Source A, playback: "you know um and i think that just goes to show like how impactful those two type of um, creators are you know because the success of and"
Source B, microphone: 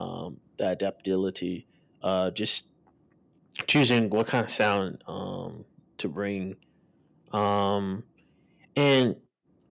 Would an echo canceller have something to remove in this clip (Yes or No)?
No